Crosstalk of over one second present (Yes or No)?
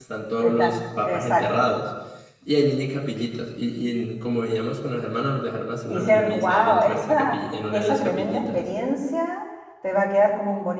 Yes